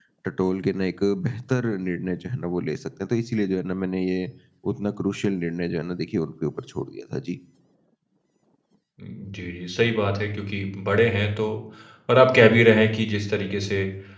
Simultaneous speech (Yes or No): No